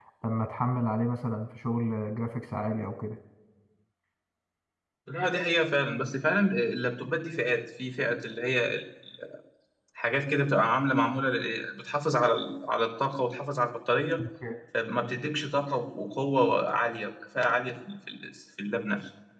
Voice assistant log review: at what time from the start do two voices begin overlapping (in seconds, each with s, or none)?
none